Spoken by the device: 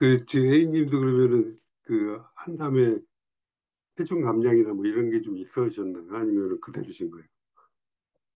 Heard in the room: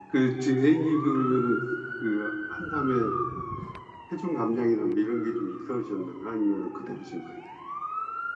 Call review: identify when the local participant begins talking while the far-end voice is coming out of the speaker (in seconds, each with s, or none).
none